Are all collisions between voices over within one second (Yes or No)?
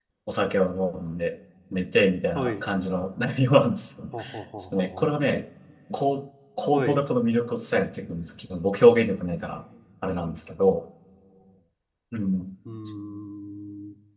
Yes